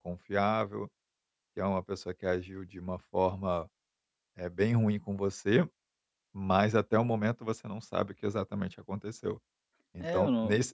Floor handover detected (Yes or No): Yes